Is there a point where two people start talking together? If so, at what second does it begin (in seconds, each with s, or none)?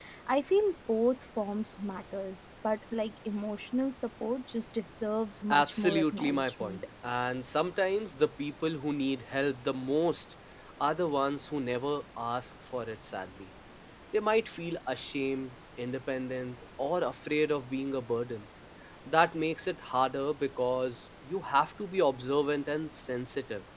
5.5 s